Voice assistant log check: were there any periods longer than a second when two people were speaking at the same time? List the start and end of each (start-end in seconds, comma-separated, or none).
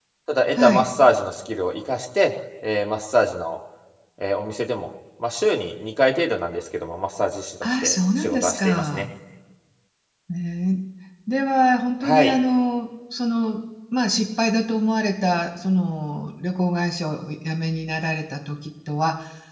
7.6-9.0